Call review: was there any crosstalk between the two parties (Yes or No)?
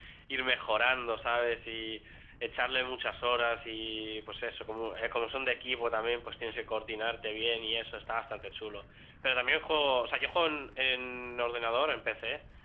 No